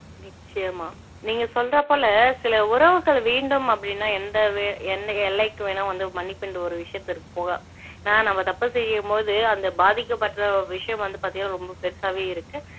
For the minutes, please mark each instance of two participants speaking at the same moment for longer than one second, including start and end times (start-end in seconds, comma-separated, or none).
none